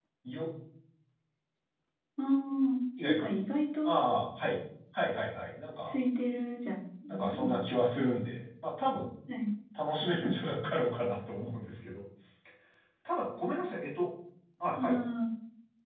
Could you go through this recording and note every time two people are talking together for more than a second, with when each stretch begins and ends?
none

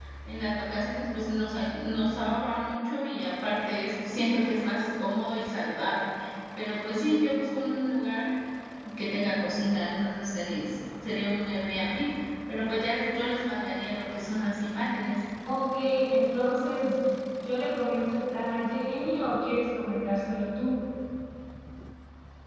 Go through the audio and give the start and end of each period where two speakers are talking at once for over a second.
none

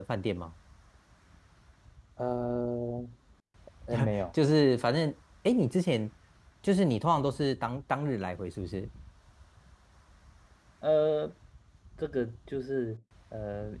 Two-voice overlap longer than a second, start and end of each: none

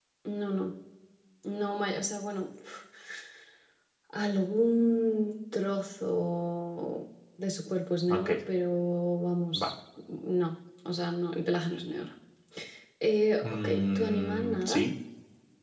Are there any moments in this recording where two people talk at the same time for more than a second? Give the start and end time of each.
13.4-14.8

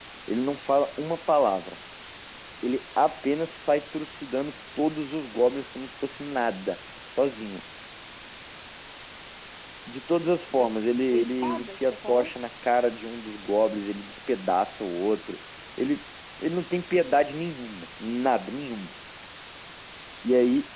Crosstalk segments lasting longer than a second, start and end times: 11.1-12.3

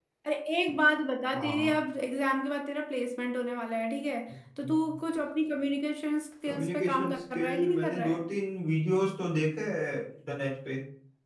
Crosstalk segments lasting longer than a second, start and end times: 6.5-8.2

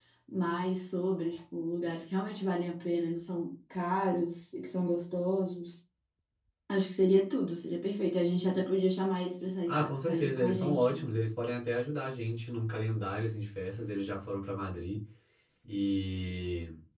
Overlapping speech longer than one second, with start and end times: 9.7-11.1

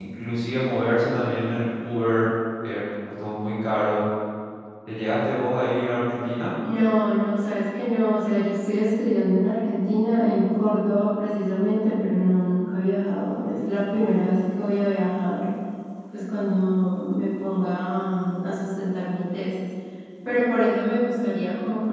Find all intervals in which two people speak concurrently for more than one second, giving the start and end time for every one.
none

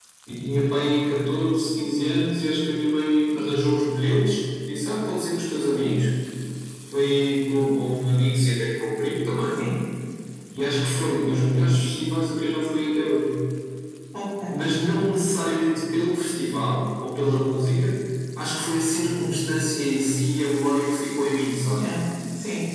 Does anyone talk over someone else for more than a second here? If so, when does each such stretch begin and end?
none

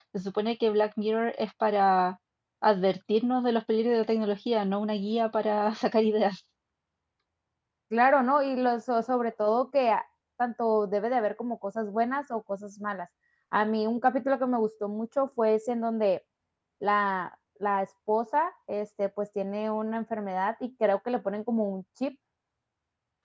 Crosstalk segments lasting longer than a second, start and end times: none

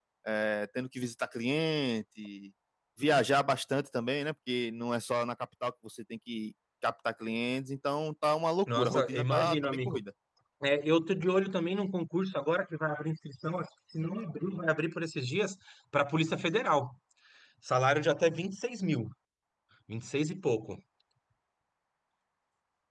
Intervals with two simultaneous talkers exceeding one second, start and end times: 8.7-10.0

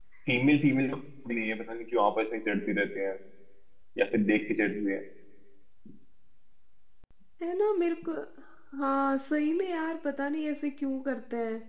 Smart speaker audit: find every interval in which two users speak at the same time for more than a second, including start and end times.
none

